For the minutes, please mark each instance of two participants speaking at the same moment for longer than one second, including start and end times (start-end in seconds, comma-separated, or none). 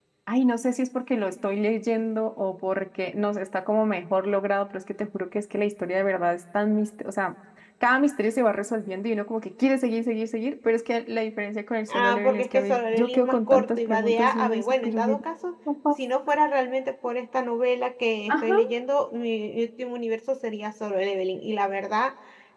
11.9-15.2